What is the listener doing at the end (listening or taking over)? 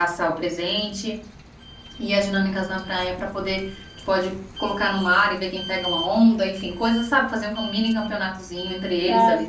taking over